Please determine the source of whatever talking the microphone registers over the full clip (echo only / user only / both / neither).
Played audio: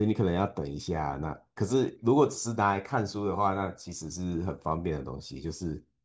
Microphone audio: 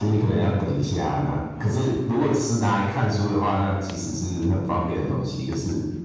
echo only